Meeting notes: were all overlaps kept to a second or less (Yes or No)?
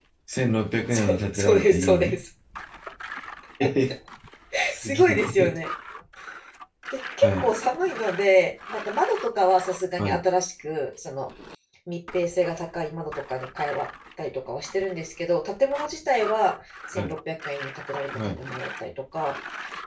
No